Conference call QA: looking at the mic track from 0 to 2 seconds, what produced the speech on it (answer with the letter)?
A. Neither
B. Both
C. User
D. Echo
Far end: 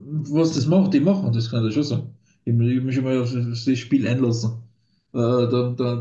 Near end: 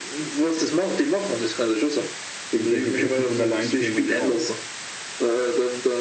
D